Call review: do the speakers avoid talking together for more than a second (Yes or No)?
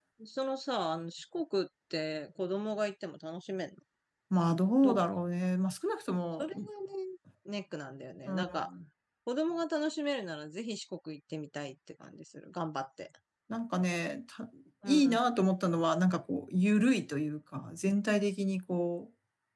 Yes